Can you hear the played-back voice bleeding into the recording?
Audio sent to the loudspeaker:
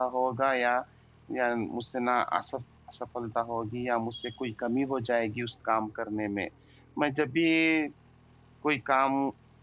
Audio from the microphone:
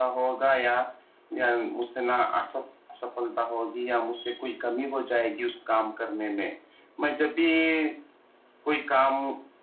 Yes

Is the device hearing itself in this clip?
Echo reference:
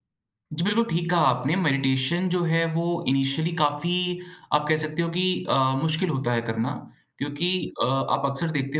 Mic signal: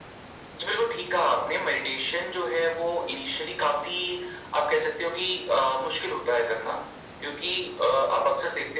Yes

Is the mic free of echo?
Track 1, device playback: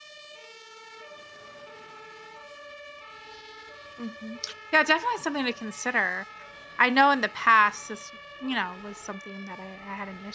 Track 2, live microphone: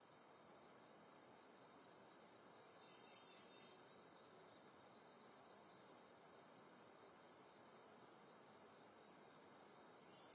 Yes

